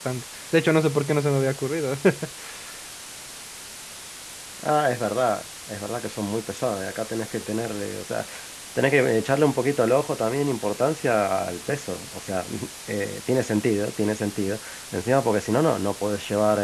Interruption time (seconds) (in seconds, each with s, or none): none